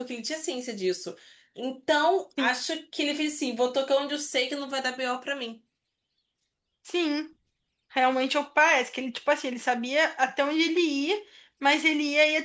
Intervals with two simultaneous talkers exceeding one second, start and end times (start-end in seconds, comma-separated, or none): none